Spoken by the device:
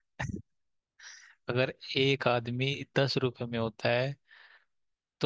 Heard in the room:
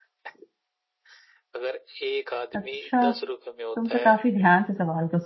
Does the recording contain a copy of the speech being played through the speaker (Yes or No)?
Yes